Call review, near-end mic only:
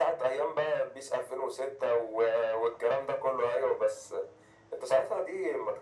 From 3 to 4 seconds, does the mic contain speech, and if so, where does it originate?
echo only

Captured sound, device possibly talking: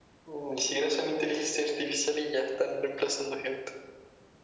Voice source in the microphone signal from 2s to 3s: echo only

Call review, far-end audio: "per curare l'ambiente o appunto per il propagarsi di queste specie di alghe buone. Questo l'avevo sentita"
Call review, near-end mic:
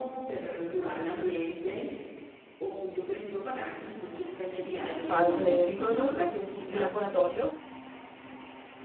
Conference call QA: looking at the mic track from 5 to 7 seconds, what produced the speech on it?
both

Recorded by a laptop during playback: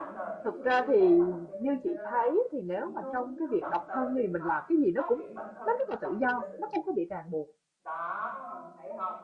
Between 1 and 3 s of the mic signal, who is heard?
both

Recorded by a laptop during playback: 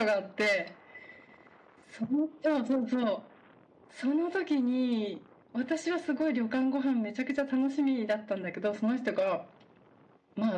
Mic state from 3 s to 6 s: echo only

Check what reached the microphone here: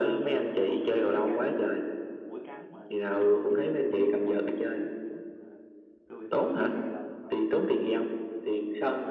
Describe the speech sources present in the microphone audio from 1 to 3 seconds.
both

